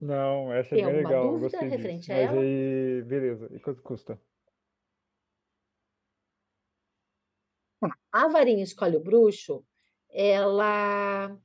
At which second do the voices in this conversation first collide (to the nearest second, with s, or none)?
1 s